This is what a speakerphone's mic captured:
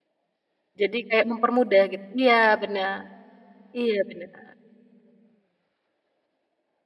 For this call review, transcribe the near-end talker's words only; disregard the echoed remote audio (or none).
Jadi kayak mempermudah, git iya, bener. Iya, bener.